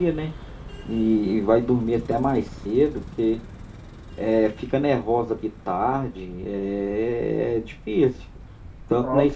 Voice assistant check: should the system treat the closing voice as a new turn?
No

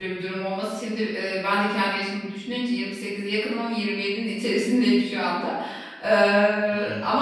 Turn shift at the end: No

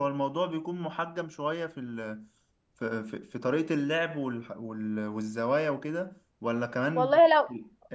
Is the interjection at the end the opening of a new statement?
Yes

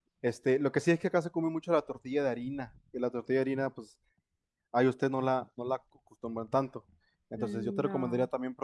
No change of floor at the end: Yes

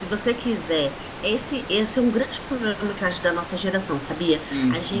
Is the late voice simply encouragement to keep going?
Yes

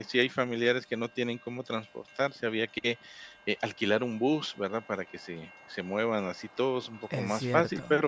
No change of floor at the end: Yes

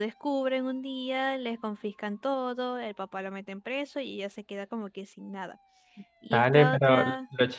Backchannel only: No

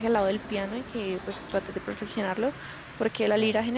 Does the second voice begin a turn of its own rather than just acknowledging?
No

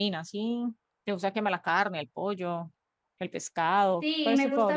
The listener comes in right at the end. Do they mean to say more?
Yes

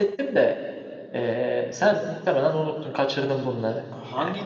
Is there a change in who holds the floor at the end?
Yes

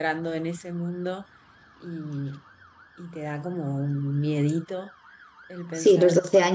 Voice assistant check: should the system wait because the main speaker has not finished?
No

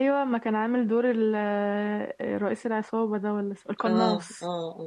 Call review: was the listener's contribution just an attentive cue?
No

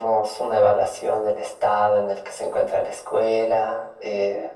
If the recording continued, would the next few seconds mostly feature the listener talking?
No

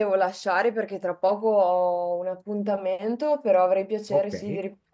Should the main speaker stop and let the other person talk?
No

